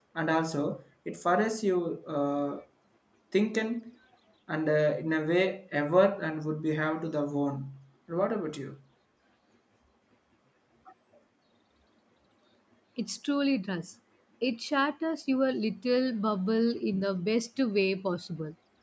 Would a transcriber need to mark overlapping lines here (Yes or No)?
No